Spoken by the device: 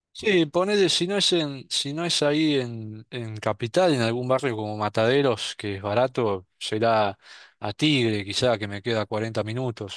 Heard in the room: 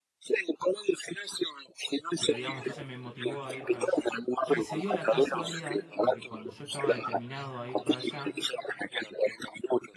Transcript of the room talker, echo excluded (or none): pero digamos, entonces me motivó a ir para allá. Y se dio la casualidad de que cuando yo estaba determinado a ir para allá,